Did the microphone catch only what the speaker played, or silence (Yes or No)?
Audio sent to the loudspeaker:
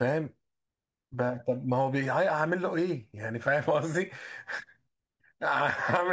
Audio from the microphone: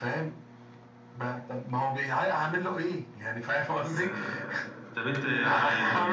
No